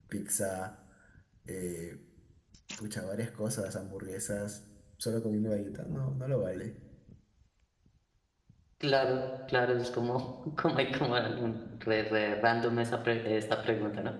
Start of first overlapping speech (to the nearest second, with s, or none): none